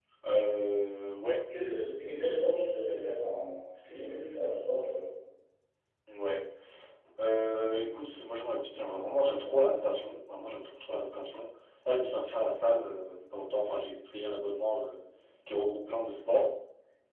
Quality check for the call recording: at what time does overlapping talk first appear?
none

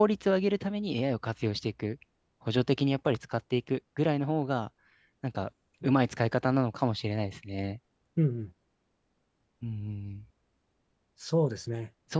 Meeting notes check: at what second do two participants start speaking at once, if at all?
none

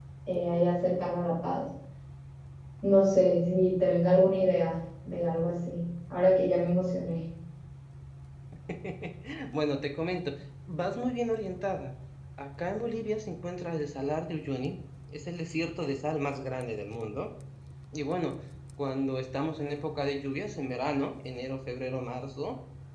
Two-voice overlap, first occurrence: none

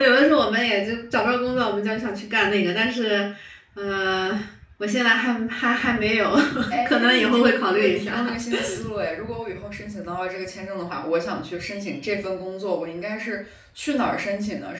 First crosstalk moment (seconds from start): 6.8 s

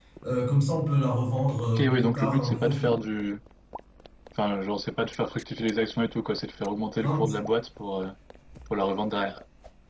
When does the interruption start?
1.8 s

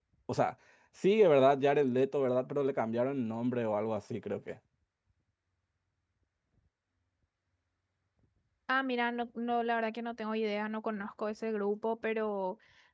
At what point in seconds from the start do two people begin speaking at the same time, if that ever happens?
none

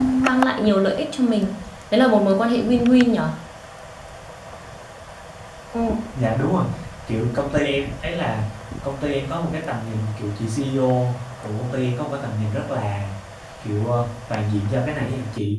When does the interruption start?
none

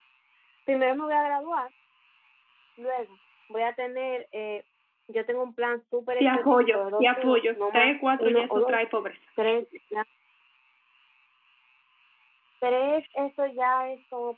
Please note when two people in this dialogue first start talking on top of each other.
6.2 s

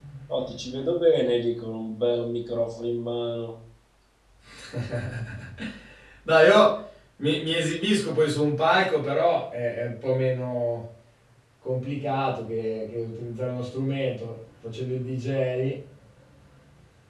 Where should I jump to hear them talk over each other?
none

